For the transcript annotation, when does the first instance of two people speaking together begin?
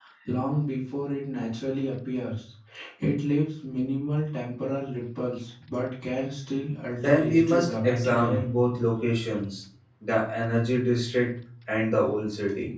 7 s

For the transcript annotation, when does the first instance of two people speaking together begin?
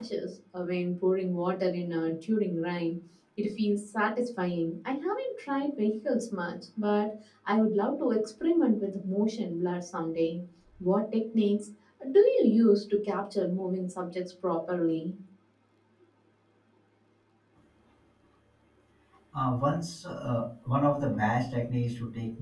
none

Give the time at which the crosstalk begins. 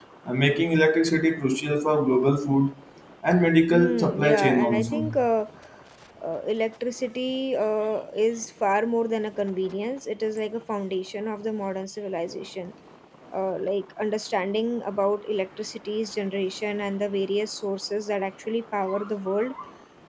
4 s

